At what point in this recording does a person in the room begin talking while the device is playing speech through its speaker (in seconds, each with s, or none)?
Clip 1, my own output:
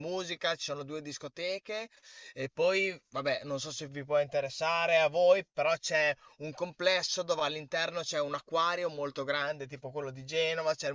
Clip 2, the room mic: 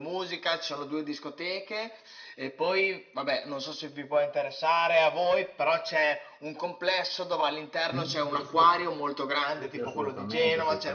7.9 s